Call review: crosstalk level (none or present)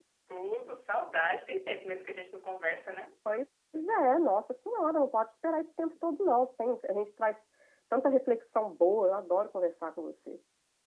none